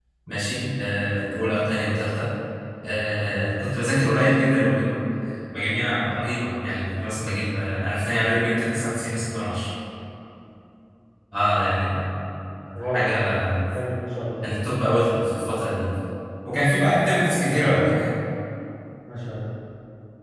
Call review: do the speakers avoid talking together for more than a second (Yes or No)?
Yes